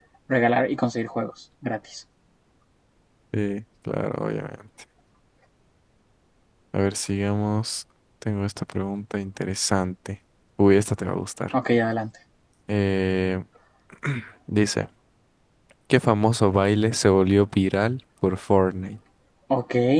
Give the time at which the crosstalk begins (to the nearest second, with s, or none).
none